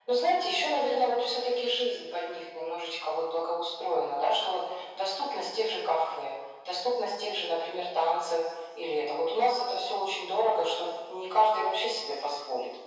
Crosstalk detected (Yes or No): No